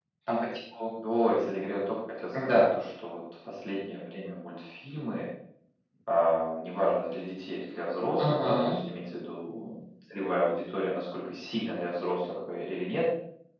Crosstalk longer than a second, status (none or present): none